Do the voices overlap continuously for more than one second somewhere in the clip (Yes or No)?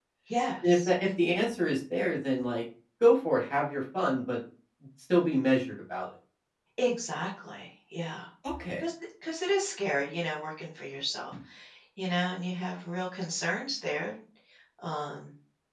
No